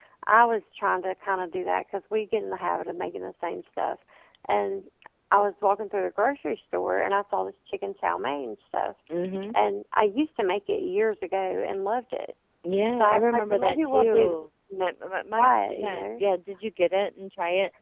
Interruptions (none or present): present